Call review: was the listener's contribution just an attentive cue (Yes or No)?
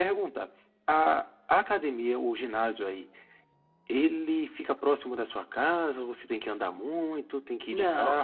No